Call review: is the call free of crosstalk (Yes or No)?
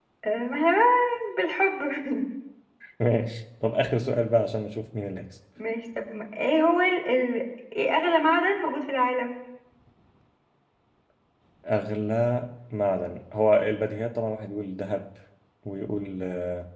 Yes